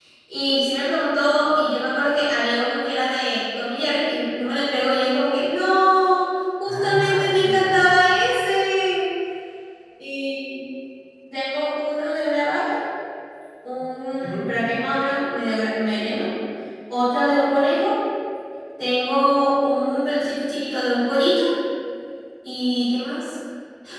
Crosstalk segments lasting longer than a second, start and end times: 6.7-7.9

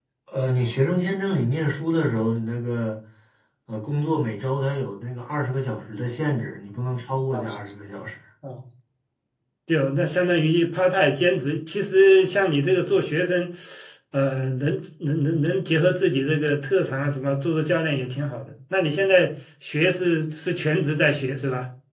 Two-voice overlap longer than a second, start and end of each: none

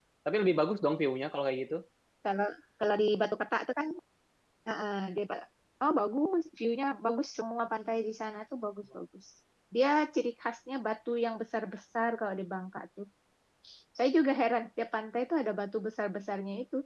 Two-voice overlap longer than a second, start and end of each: none

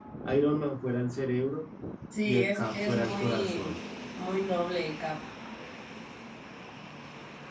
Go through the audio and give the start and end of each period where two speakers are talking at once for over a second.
2.2-3.7

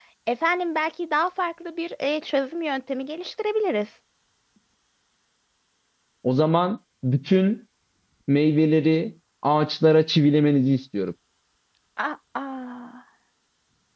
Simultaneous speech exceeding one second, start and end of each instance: none

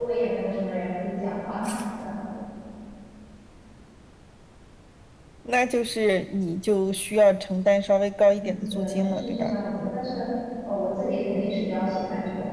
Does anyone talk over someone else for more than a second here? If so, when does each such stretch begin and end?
8.2-9.5

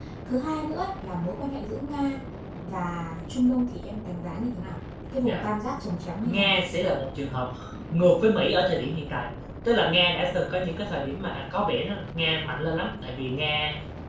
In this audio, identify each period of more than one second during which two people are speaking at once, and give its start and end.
none

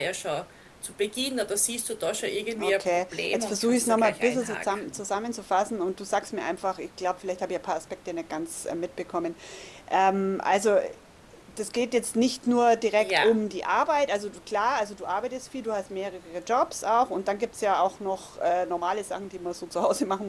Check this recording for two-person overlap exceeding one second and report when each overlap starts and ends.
2.6-5.0

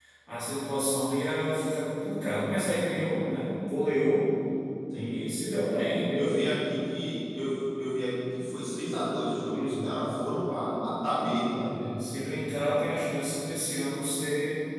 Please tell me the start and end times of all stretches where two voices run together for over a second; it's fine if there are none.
none

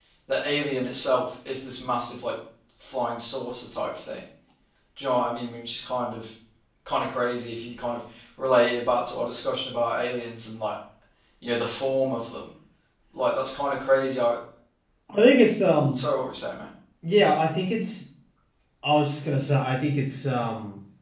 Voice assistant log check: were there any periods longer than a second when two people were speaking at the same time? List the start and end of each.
none

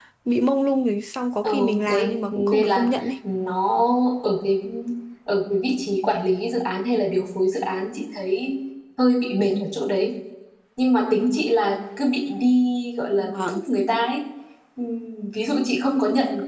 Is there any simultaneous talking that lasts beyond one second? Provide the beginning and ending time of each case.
1.4-2.9

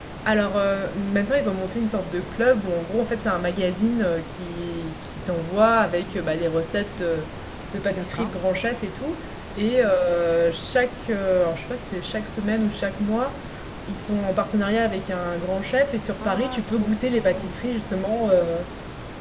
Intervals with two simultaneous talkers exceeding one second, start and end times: 16.2-17.6

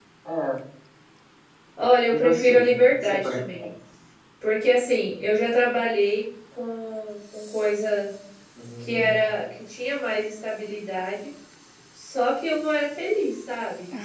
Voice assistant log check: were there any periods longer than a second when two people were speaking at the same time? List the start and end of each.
2.1-3.7

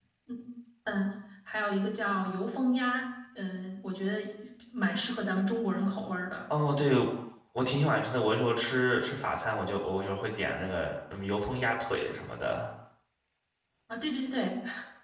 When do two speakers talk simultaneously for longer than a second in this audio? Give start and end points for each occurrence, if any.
none

